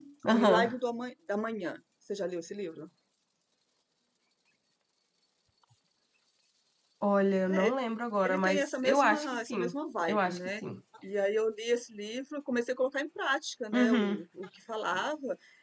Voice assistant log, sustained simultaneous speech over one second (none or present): present